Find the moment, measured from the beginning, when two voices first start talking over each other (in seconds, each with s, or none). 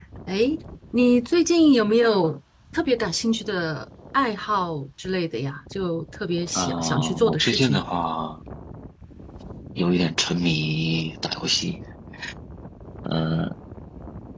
6.5 s